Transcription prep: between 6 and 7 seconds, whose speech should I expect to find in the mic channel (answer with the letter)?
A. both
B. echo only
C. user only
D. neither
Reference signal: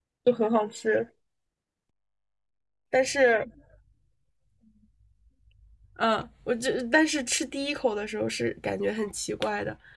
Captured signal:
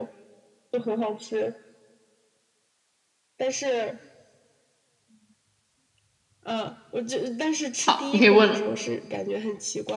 B